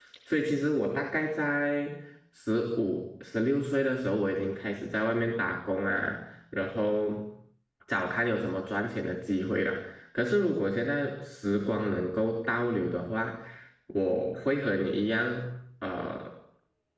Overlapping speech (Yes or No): No